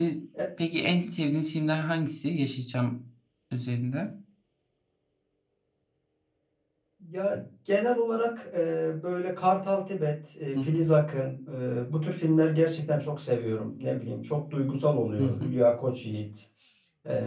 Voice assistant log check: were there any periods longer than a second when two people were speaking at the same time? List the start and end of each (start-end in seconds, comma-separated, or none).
none